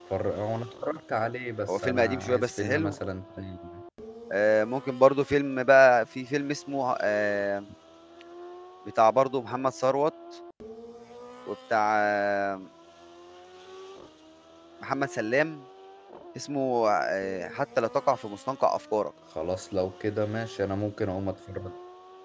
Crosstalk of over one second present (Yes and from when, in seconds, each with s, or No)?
Yes, from 1.7 s